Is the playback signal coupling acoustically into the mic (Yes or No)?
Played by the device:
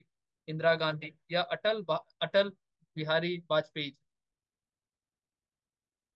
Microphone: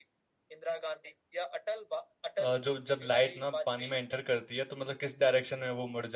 Yes